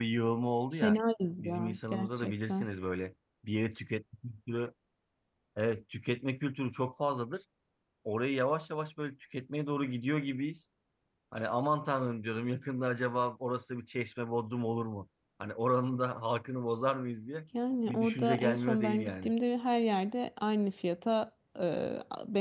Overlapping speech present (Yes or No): Yes